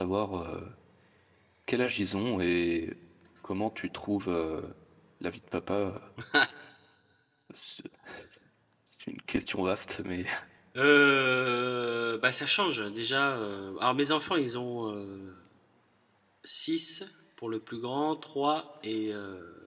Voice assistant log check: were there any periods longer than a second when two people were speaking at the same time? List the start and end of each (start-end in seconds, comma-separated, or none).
none